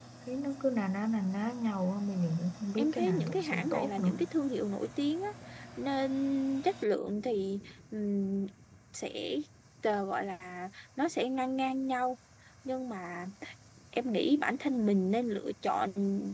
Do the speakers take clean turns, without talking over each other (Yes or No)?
No